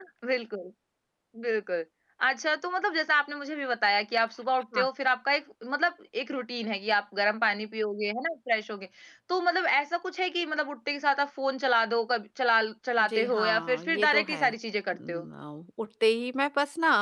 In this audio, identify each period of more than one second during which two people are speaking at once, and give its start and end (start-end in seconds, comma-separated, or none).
13.0-14.5